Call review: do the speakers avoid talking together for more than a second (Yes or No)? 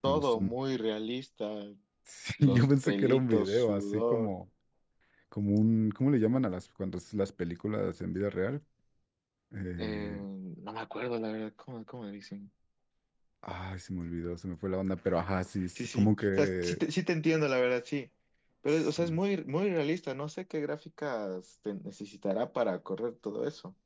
No